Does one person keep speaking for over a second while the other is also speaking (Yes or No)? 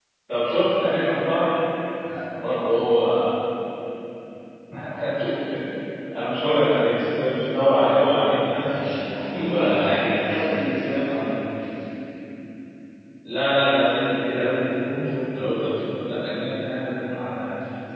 No